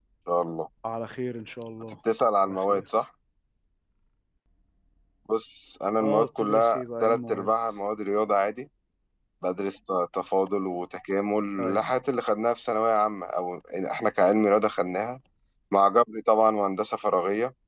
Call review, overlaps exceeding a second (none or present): present